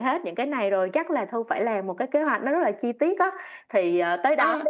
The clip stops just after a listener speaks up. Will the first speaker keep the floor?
Yes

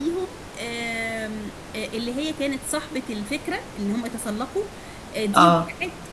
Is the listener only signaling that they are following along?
Yes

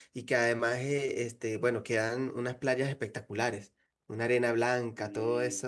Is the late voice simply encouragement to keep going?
Yes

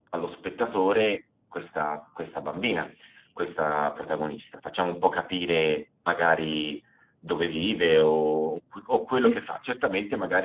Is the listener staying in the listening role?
Yes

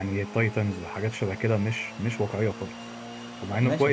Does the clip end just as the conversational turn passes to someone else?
Yes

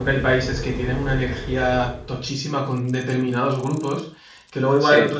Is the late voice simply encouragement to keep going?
Yes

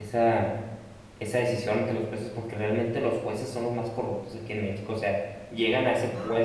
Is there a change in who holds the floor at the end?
No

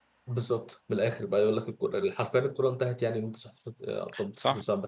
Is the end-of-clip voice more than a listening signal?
Yes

